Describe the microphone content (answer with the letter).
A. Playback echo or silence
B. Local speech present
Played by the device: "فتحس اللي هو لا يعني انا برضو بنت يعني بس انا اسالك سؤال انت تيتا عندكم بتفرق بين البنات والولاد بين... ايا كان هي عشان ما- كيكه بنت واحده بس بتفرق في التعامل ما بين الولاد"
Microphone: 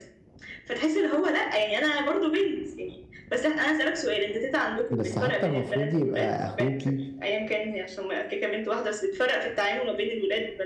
B